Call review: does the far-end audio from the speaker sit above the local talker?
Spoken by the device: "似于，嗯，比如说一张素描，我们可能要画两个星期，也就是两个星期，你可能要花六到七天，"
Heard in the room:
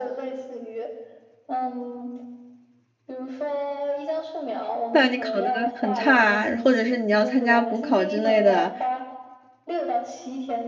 No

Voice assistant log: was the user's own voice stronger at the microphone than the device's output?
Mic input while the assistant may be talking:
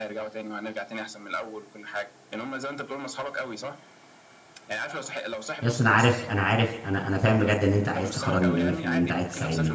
Yes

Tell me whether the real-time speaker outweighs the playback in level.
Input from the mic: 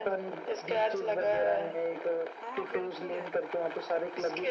No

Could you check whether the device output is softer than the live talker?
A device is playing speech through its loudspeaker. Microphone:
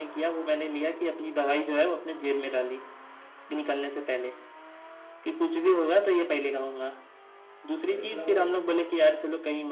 No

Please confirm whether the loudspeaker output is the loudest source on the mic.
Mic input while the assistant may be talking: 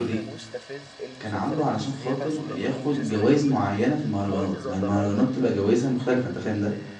No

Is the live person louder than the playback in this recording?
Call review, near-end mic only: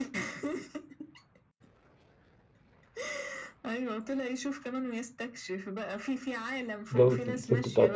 Yes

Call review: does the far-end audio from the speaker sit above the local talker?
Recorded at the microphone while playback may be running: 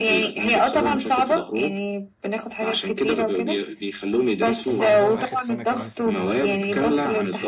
Yes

